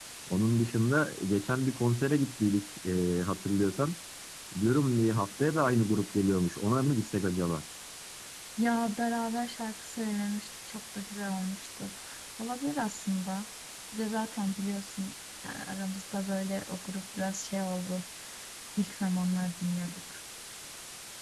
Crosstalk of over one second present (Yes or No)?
No